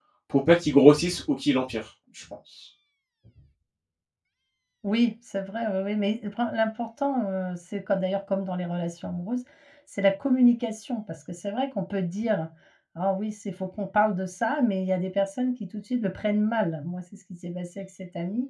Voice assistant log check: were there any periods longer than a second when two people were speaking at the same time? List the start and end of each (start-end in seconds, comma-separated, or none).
none